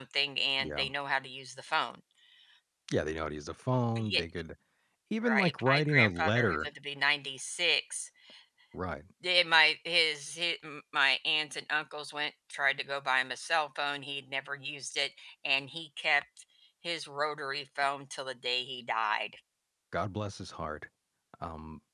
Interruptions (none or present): present